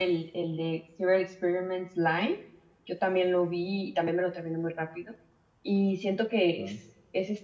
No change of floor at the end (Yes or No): Yes